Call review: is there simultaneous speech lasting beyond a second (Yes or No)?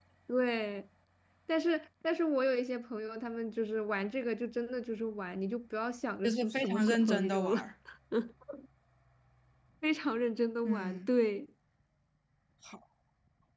Yes